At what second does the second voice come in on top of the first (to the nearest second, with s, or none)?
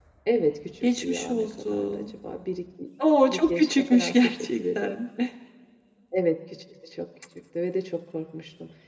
1 s